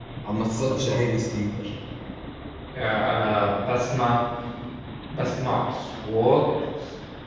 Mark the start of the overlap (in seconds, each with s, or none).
none